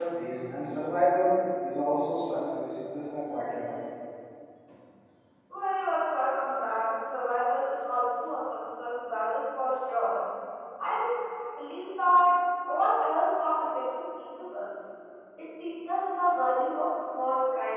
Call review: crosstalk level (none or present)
none